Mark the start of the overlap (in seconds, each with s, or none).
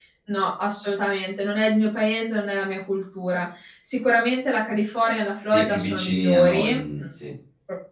5.5 s